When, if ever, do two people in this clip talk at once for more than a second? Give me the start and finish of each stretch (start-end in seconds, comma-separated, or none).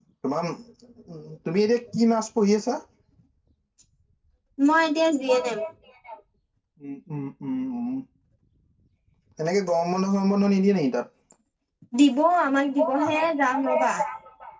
12.6-13.9